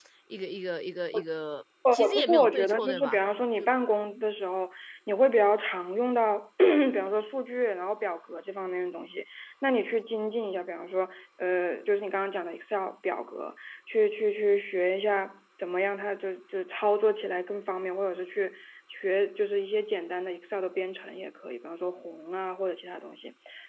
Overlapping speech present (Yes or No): Yes